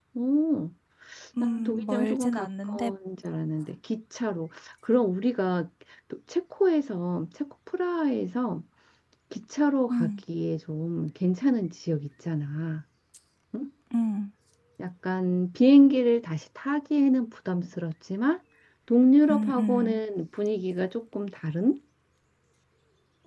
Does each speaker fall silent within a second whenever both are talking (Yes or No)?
No